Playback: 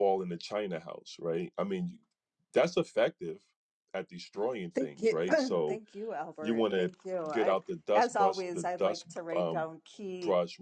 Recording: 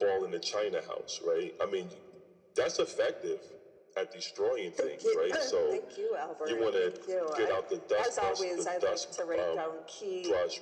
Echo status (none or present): present